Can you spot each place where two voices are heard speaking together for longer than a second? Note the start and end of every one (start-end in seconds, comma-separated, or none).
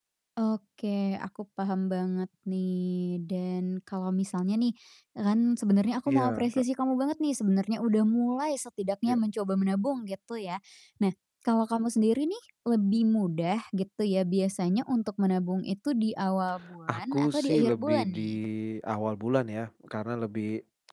16.9-18.2